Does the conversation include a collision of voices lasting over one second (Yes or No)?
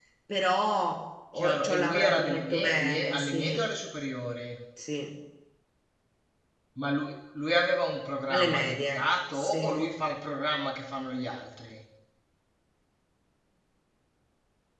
Yes